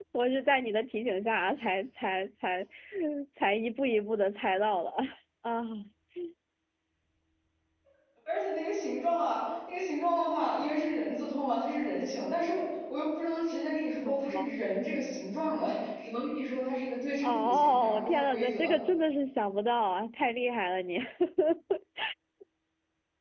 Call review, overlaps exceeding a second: present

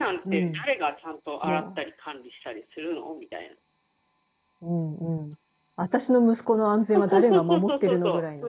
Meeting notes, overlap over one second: present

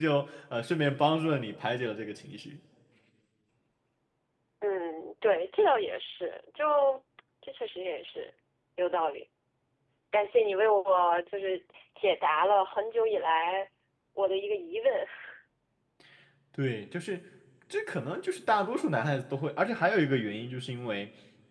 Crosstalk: none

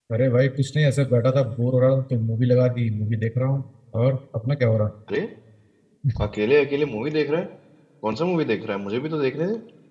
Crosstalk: none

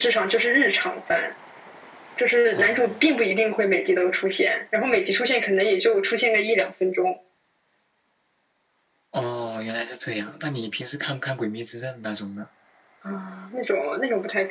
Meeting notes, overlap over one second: none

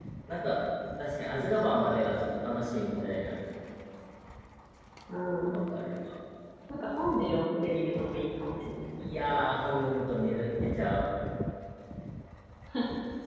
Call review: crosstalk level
none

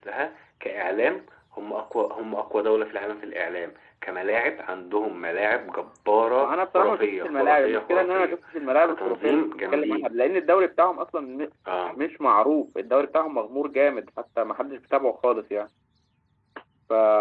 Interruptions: present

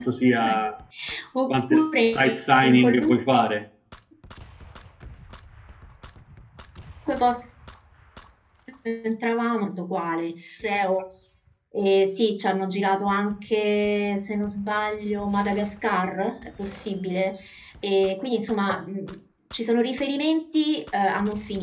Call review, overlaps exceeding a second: present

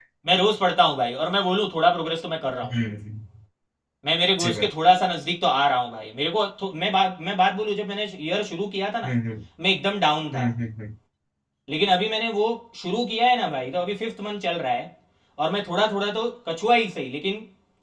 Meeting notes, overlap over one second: none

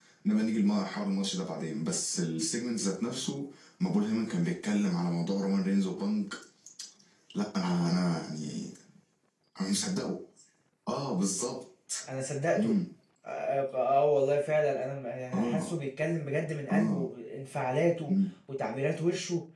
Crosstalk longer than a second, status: none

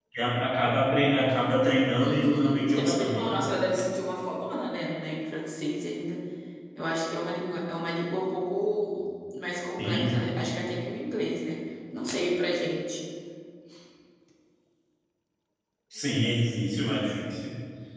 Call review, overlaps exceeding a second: present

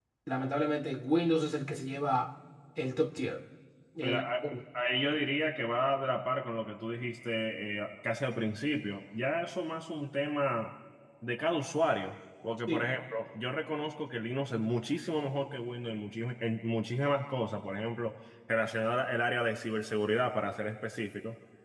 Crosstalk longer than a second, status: none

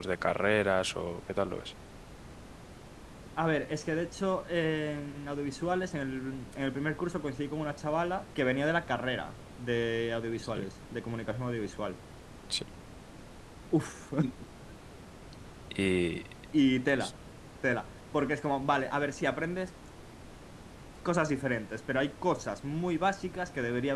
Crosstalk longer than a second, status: none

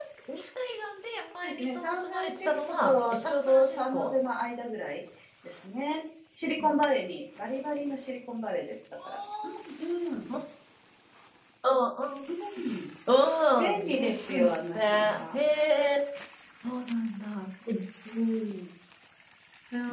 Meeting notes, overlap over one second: present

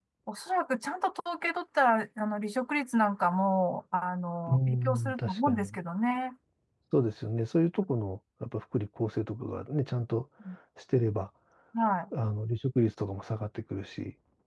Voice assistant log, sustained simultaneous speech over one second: present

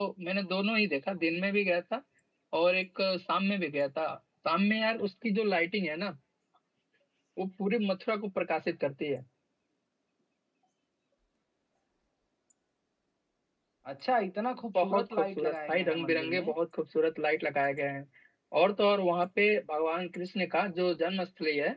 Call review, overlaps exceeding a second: present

